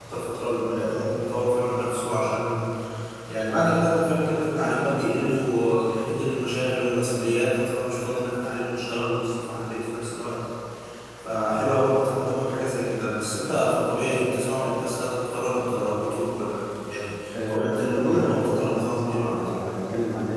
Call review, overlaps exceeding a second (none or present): present